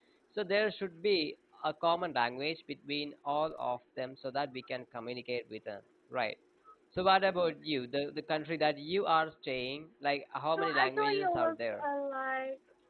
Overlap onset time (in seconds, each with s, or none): 10.5 s